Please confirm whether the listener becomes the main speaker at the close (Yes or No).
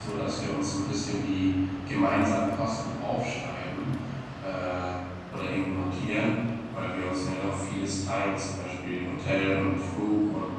No